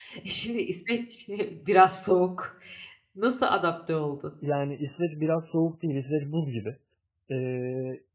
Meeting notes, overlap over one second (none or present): none